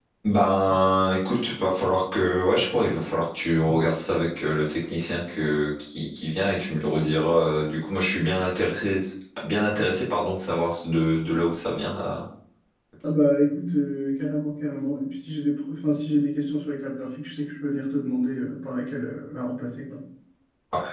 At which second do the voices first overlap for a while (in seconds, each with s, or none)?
none